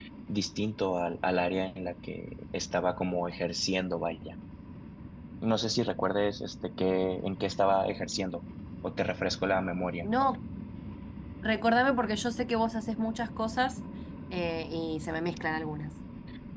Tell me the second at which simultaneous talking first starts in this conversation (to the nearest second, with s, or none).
none